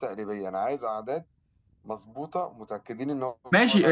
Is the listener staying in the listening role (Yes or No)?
No